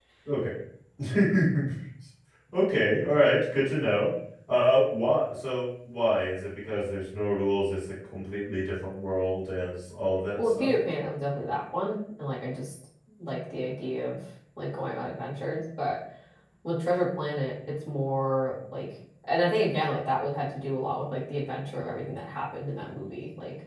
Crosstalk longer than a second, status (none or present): none